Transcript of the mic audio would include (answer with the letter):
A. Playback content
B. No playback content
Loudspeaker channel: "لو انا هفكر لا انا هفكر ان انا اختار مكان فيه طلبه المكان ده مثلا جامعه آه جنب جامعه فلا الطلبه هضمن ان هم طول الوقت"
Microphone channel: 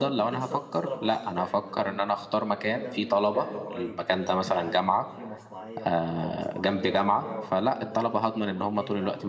A